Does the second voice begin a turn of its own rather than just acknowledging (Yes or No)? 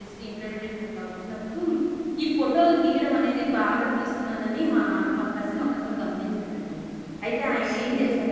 Yes